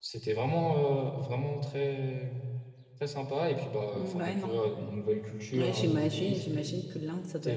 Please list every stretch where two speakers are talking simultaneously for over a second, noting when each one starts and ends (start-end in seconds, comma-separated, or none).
5.5-6.7